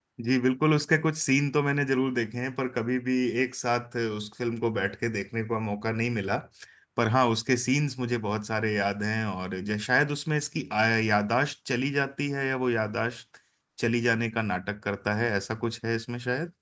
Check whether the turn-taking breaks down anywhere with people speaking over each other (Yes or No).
No